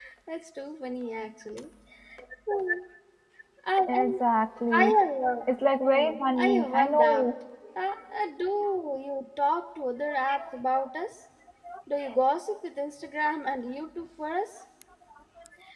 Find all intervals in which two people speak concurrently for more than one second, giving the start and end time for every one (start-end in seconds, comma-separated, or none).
5.8-7.3